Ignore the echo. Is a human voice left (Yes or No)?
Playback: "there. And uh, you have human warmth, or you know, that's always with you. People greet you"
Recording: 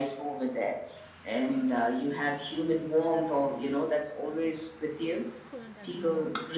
Yes